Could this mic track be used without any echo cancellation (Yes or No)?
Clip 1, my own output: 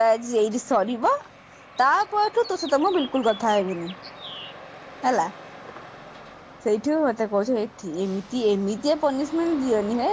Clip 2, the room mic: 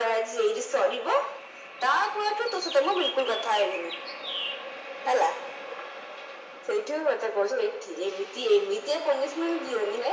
No